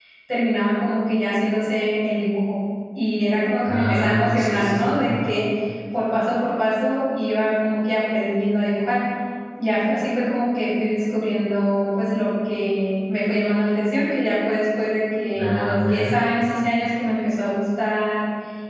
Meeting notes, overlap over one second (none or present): present